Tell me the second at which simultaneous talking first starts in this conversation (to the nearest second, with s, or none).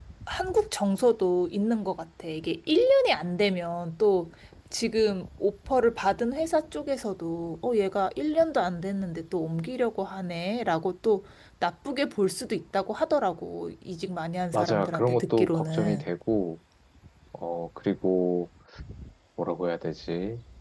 15 s